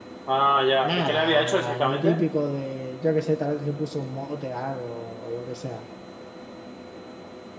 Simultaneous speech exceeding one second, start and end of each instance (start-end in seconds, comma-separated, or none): 0.8-2.2